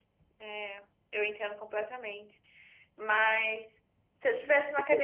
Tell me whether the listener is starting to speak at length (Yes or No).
No